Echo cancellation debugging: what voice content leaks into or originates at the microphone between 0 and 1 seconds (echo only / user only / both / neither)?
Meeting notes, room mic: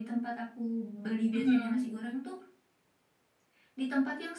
echo only